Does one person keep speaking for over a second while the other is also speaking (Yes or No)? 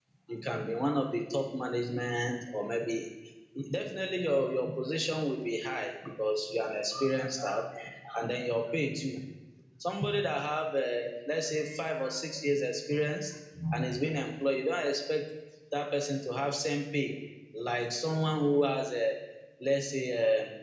No